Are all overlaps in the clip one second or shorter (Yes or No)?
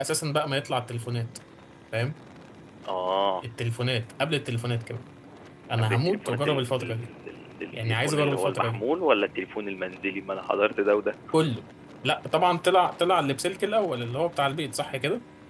No